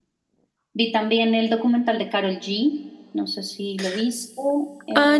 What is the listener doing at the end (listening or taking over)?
taking over